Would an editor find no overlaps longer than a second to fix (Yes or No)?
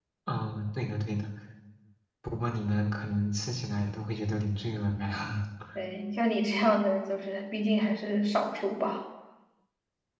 Yes